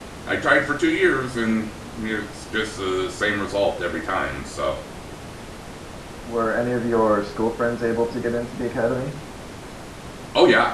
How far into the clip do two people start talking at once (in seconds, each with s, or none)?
none